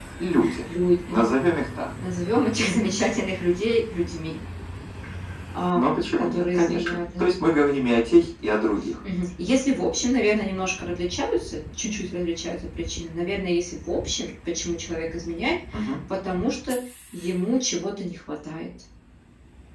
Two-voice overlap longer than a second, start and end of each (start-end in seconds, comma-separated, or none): 5.7-7.3